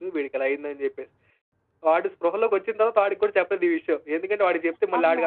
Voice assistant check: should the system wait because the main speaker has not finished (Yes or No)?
Yes